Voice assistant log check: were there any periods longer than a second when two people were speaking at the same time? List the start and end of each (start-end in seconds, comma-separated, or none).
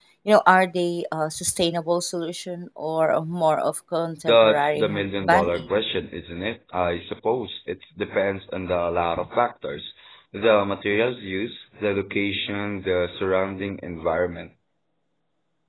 4.3-5.6